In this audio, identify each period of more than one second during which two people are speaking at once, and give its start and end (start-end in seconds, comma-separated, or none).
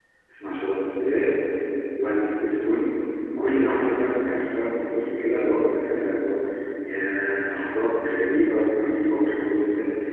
none